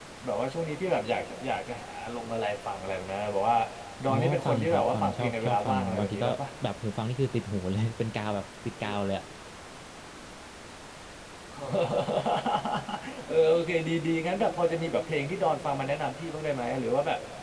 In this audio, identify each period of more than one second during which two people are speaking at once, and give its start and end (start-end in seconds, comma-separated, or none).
4.1-6.4